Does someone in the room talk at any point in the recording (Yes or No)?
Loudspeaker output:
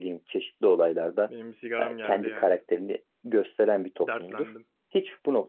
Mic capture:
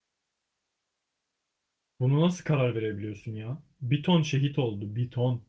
Yes